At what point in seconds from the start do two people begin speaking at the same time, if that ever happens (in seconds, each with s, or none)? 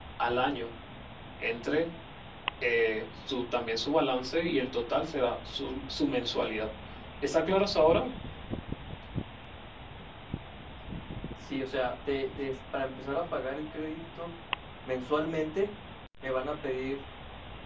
none